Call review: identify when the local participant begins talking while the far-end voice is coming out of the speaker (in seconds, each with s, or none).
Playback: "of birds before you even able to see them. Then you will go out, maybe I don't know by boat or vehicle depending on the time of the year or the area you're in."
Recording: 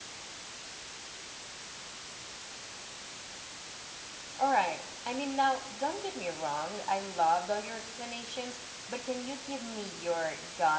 4.3 s